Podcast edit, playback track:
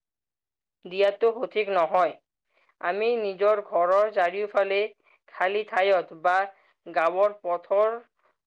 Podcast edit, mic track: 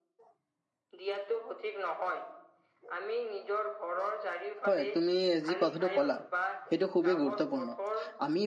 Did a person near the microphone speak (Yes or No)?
Yes